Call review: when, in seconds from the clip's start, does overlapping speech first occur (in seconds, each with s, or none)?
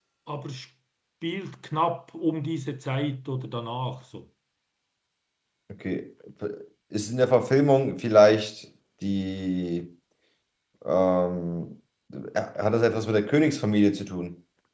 none